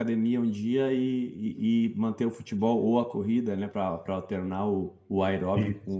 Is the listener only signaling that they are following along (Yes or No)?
Yes